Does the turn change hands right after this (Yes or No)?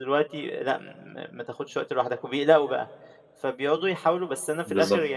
No